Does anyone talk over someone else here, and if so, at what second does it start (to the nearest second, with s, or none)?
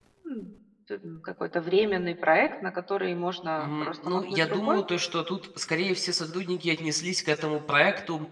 4 s